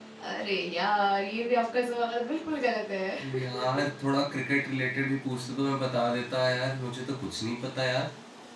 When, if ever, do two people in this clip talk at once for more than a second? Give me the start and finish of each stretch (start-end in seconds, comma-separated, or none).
none